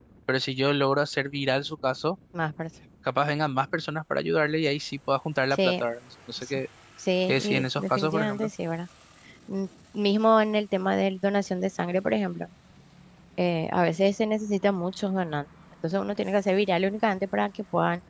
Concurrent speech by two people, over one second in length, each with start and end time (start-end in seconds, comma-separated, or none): 7.3-8.5